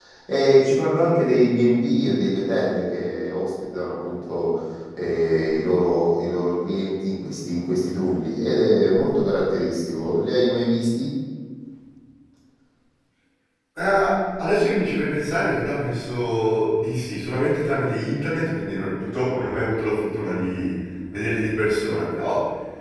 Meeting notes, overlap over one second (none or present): none